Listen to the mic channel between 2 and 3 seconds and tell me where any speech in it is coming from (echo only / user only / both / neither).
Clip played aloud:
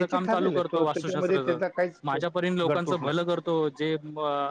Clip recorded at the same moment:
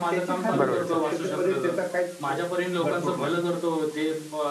echo only